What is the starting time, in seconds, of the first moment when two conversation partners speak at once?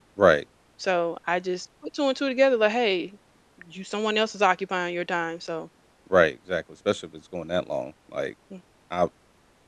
none

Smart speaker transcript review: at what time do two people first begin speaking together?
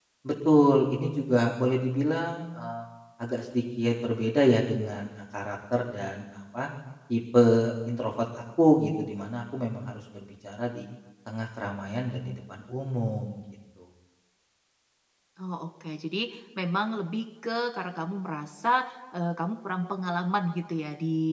none

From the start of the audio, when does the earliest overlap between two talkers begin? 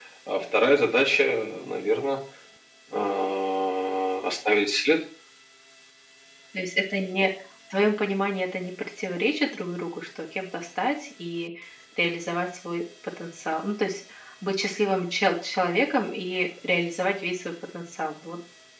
none

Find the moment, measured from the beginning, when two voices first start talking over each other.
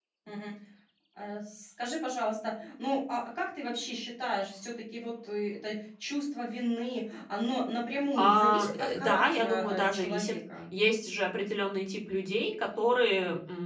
8.2 s

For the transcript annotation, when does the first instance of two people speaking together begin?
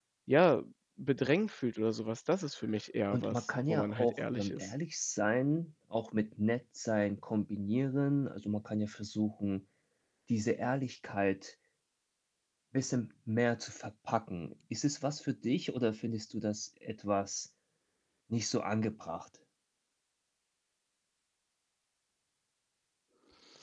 3.1 s

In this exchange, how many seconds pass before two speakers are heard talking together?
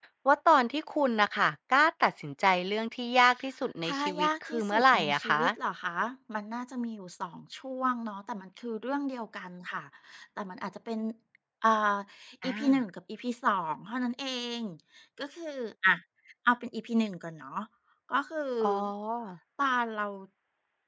3.8 s

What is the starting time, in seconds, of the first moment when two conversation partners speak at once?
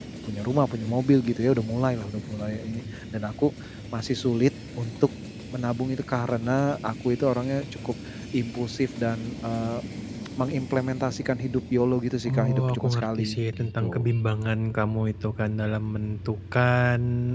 12.2 s

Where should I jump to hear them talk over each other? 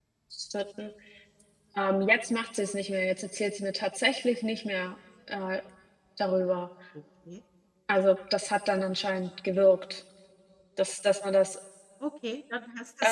none

